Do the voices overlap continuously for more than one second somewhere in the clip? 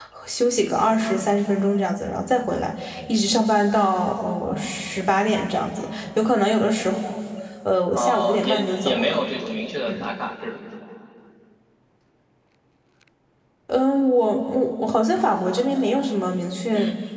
Yes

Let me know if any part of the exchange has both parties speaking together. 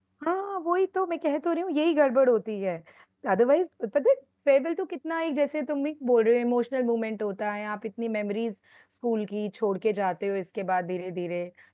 No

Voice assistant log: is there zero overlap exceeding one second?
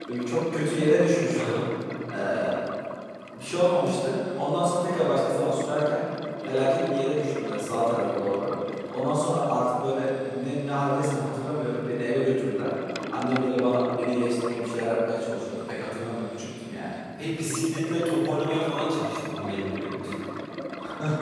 Yes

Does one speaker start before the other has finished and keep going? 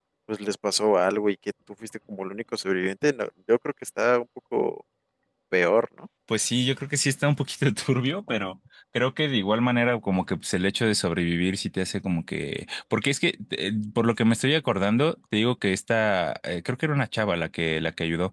No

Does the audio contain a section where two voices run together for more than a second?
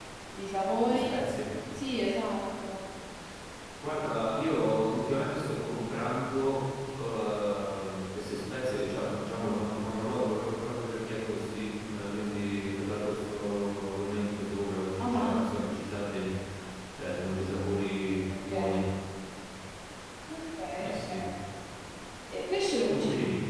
No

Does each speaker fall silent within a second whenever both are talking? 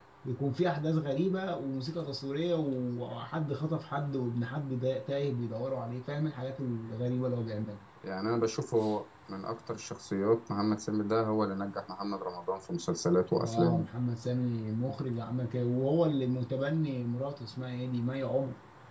Yes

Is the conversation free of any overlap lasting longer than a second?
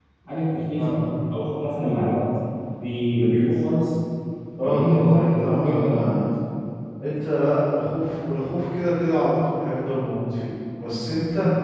No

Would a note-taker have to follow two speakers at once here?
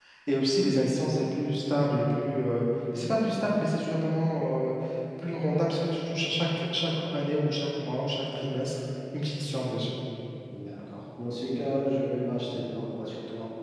No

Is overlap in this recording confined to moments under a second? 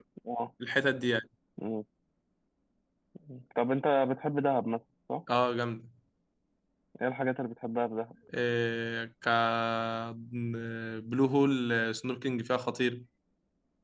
Yes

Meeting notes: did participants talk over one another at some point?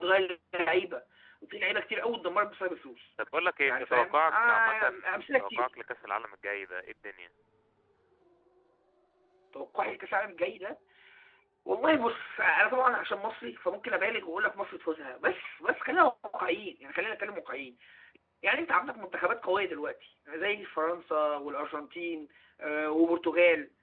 Yes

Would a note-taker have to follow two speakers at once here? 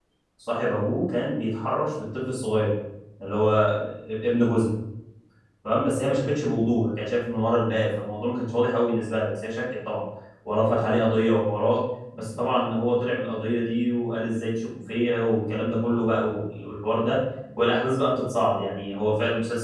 No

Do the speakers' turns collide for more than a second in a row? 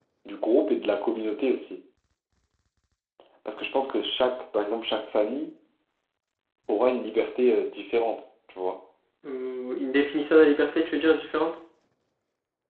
No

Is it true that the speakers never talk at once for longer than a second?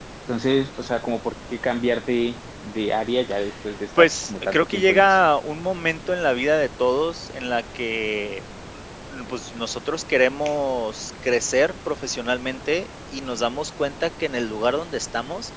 No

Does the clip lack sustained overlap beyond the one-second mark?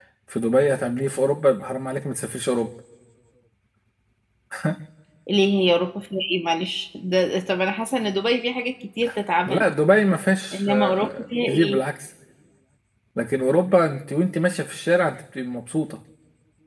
No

